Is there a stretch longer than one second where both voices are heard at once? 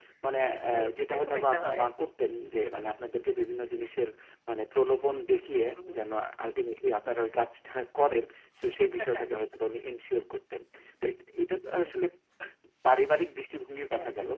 Yes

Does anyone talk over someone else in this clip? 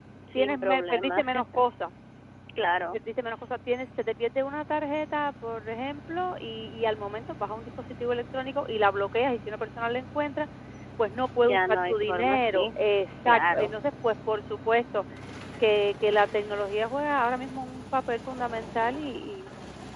Yes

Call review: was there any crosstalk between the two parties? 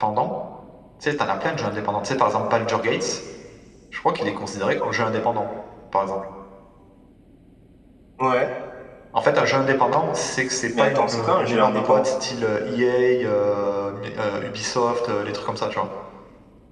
Yes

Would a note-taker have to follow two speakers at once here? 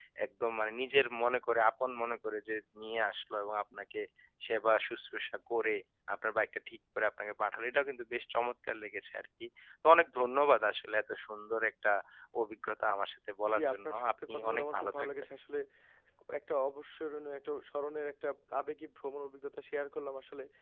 Yes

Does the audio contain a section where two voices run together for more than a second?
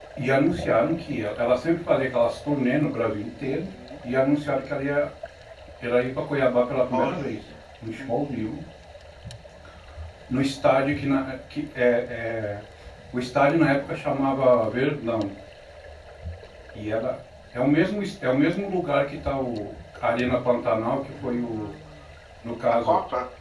No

